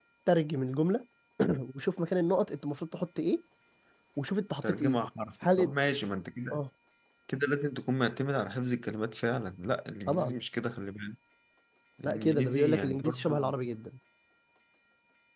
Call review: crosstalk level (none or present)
present